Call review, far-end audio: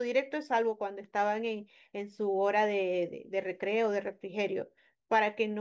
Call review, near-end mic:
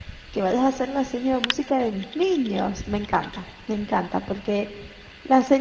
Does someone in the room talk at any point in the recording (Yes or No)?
Yes